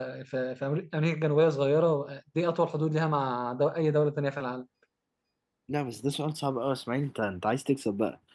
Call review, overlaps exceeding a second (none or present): none